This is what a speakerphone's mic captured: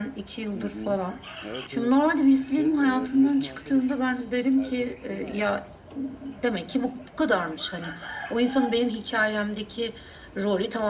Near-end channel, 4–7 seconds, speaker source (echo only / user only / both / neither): both